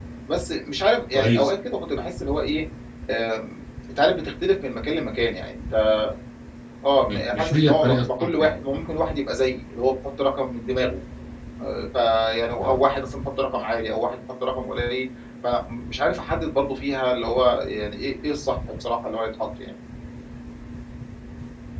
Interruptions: present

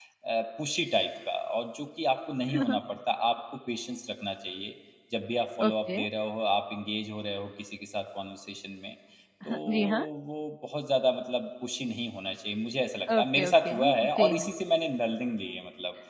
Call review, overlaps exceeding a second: present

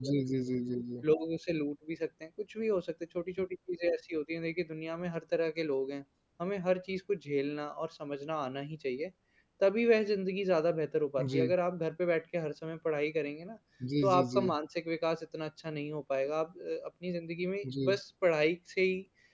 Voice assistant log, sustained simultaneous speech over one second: none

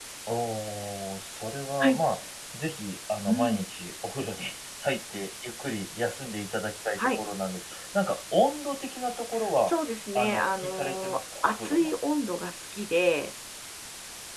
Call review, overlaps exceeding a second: present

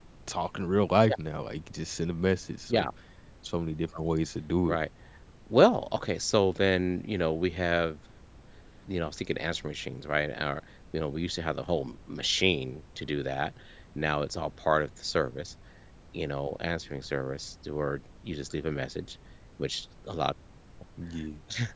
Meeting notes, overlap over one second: none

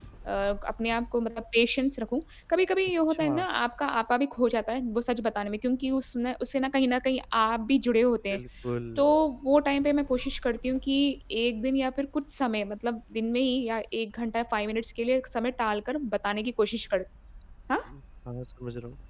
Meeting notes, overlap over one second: none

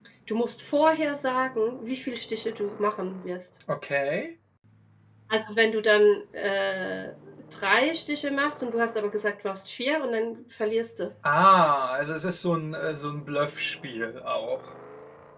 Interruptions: none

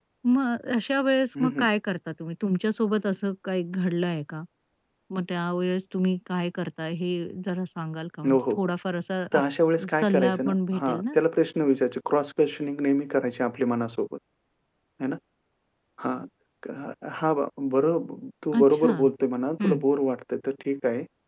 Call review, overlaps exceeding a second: present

